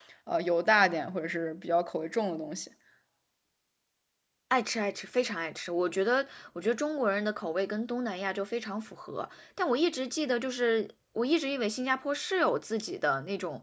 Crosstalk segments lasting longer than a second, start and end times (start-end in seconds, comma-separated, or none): none